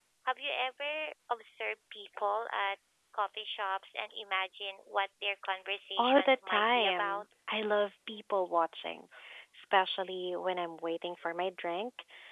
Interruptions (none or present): present